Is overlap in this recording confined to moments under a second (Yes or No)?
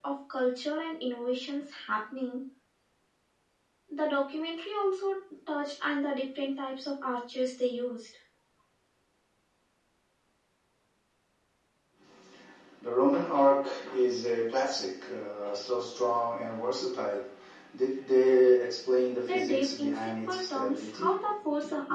No